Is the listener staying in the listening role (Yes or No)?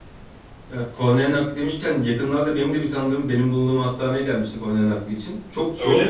Yes